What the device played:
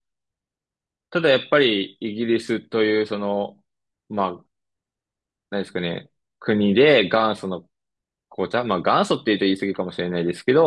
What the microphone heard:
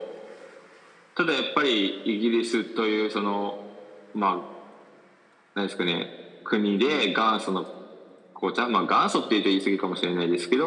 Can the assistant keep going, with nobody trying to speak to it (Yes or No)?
Yes